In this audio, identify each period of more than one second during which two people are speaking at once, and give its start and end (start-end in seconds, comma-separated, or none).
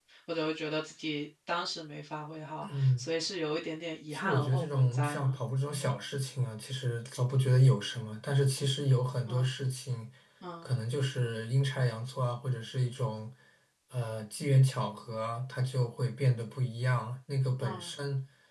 4.1-5.4